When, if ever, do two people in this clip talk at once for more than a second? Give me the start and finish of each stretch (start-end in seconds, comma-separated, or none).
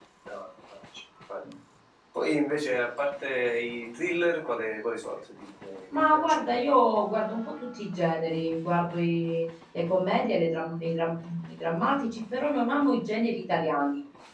none